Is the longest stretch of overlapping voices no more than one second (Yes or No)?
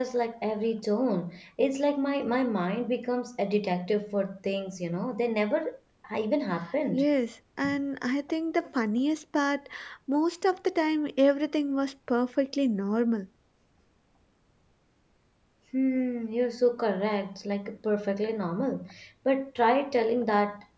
Yes